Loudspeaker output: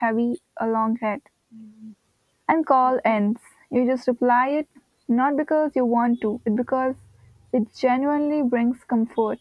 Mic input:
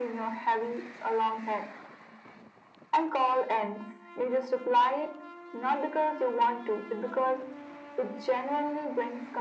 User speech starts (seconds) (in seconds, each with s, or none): none